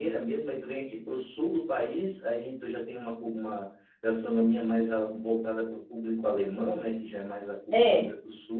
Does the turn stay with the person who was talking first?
Yes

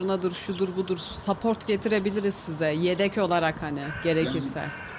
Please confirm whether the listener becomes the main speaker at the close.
Yes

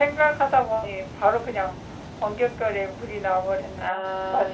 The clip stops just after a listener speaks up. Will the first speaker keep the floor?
No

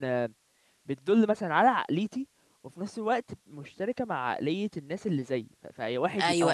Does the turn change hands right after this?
Yes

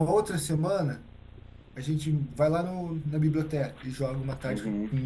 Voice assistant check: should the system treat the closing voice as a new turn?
Yes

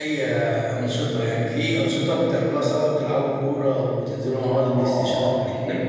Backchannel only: No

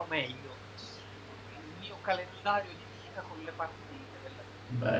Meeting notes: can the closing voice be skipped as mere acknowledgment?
No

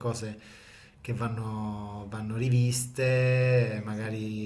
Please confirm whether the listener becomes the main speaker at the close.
No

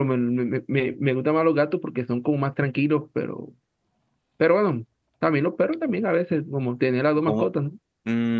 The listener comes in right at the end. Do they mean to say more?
Yes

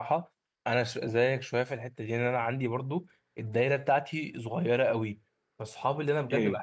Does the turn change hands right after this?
No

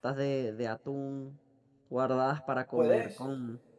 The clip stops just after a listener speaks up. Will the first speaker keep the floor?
Yes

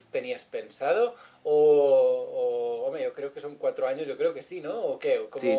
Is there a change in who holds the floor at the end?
Yes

